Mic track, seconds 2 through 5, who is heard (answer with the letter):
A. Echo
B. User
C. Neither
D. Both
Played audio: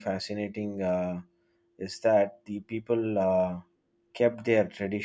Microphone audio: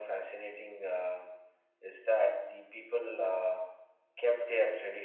A